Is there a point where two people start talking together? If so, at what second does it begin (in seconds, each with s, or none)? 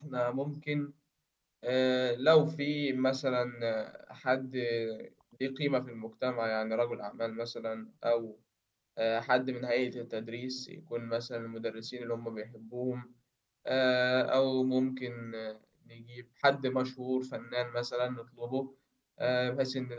none